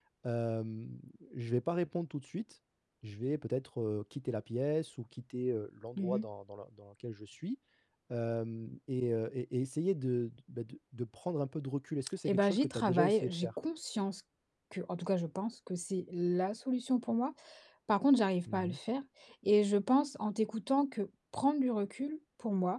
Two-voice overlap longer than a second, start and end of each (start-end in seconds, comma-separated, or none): 12.3-13.5